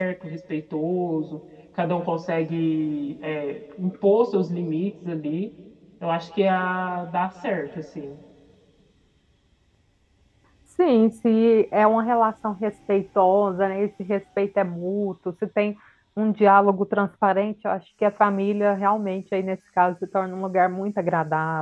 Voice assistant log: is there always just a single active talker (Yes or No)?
Yes